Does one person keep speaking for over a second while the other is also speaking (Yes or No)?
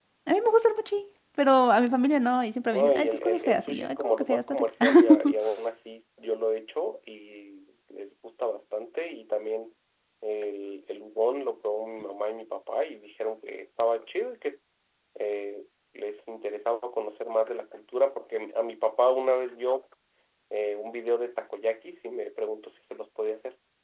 Yes